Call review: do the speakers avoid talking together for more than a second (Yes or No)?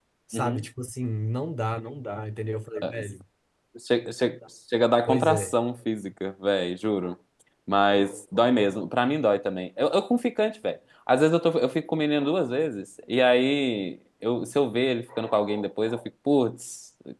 Yes